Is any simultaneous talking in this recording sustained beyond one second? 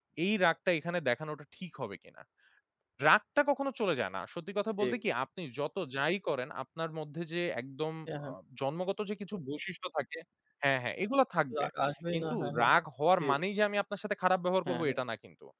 No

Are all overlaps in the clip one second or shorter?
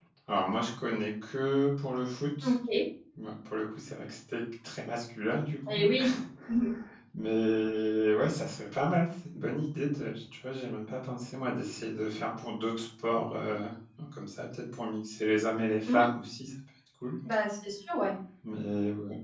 Yes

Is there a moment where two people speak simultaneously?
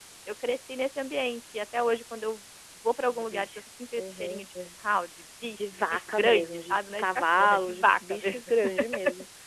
Yes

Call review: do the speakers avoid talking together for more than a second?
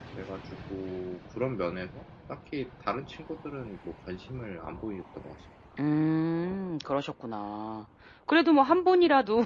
Yes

